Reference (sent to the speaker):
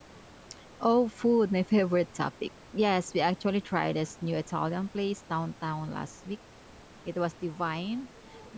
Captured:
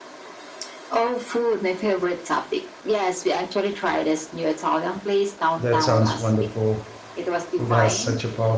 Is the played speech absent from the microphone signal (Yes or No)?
No